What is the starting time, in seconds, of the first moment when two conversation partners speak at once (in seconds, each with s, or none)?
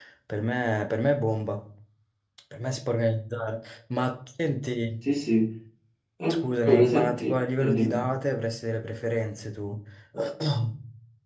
6.7 s